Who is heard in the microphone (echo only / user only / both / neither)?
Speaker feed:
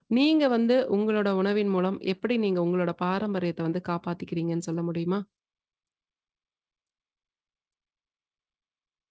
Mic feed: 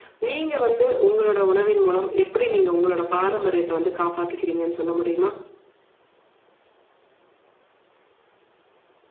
echo only